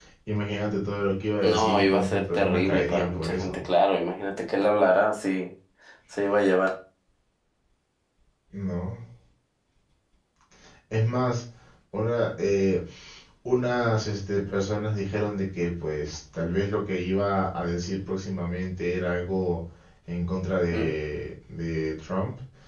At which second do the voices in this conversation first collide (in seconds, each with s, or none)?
1.4 s